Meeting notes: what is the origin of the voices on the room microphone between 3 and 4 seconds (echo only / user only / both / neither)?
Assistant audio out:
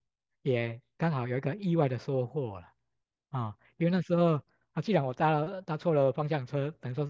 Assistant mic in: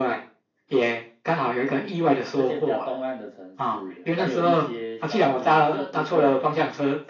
both